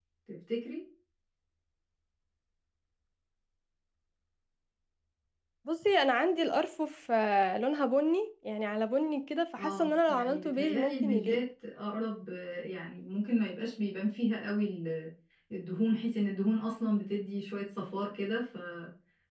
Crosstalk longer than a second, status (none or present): present